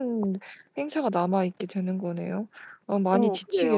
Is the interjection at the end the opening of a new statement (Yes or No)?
Yes